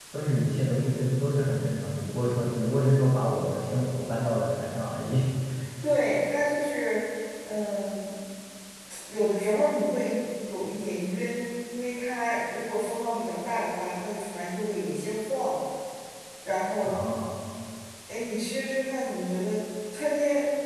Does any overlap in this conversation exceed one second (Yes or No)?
No